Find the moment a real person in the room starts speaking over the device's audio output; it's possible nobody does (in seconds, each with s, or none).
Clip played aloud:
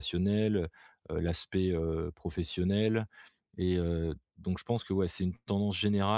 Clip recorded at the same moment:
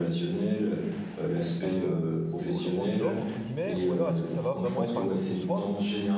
1.6 s